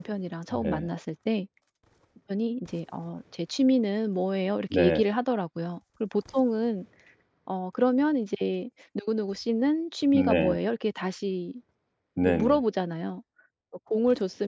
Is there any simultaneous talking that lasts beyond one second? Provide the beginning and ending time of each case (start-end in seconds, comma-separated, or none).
none